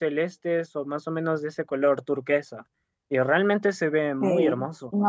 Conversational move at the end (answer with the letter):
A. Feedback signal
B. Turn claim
B